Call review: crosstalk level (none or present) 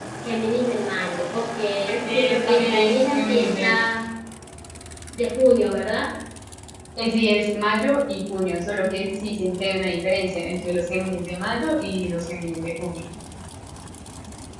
present